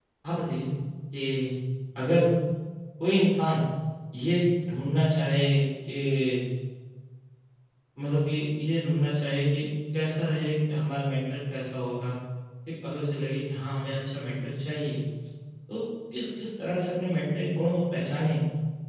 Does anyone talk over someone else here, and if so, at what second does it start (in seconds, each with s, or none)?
none